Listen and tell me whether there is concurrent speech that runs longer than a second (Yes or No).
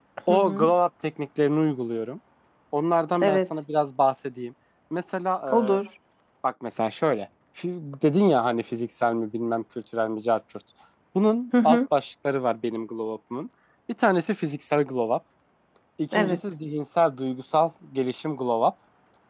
No